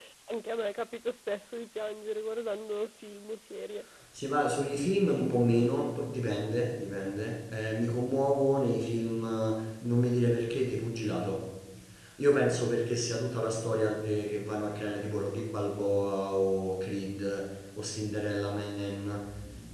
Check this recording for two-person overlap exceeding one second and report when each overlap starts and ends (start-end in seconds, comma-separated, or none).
none